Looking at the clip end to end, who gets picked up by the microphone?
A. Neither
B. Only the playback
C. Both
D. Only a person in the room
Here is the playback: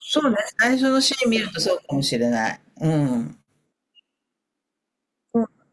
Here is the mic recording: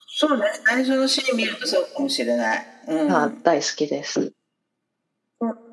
C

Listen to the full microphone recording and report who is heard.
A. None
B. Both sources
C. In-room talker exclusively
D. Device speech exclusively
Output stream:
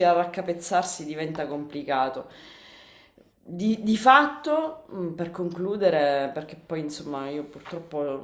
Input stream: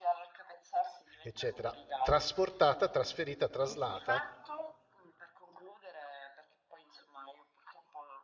B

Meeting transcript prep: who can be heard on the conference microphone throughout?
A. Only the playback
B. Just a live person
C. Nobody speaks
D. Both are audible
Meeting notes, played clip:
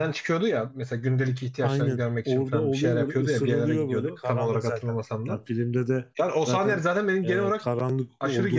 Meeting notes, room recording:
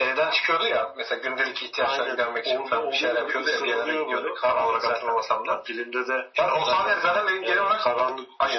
A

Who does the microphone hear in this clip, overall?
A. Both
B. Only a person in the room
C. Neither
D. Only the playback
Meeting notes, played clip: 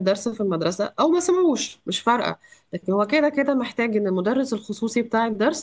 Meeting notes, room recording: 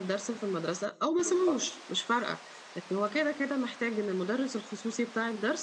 A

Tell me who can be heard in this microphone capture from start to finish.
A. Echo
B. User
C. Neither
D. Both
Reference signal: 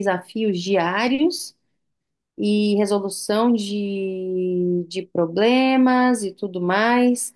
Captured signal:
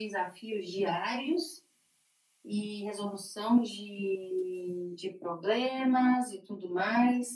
A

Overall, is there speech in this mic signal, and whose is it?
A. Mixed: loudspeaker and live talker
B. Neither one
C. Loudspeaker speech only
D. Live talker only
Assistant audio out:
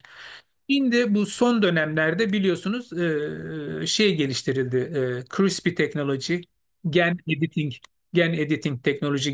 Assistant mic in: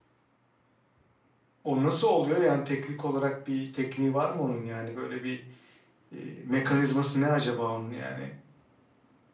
D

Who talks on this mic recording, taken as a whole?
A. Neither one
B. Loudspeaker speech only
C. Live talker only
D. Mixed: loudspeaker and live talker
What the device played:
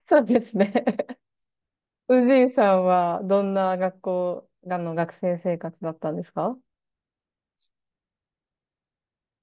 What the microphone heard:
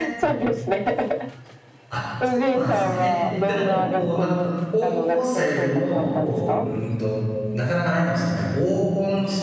D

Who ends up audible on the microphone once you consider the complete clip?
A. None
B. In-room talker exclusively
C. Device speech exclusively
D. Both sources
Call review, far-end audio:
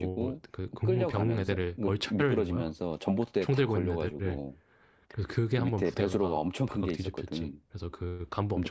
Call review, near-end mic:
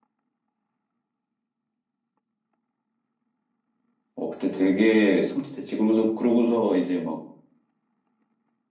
B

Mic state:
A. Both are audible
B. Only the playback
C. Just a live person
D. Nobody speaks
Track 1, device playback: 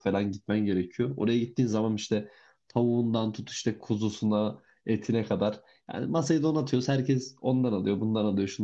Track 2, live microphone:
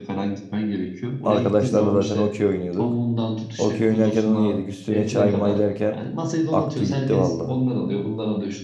A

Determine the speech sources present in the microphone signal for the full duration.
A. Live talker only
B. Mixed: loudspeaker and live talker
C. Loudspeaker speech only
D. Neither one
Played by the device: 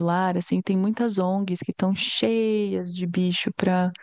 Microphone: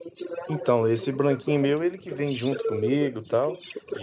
B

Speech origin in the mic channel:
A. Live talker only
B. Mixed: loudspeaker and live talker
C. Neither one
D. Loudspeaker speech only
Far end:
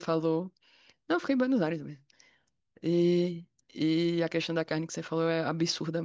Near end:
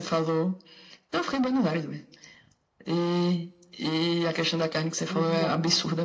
B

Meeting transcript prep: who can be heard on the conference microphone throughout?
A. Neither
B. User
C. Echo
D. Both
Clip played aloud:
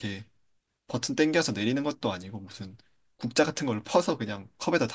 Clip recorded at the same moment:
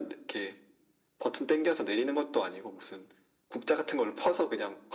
C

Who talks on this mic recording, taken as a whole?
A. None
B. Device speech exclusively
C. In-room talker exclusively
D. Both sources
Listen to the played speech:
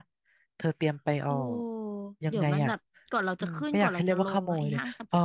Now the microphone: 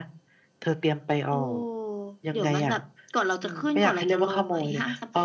B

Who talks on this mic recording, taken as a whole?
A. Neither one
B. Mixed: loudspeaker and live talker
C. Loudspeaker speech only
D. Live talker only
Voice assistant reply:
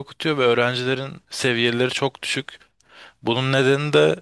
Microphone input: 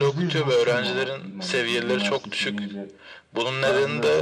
B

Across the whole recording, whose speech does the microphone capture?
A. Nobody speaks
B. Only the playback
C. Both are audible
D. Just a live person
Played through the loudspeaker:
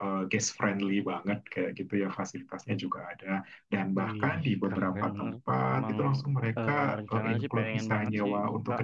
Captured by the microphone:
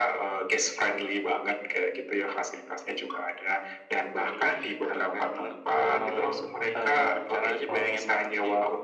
C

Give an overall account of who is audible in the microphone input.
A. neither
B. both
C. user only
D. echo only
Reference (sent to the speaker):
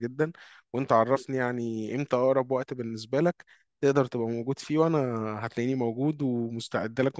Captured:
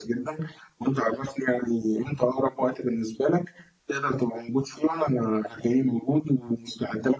D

